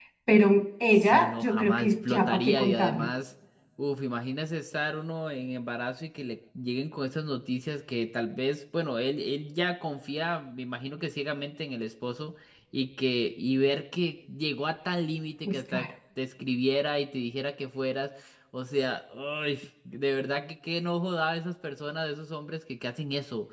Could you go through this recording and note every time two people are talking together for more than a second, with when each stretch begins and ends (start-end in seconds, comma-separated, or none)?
1.0-3.1